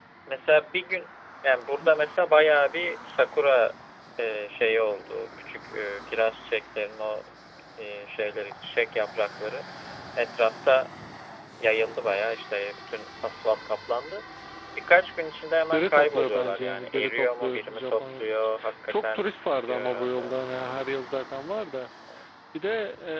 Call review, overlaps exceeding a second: present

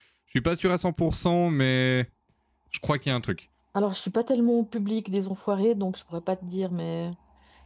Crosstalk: none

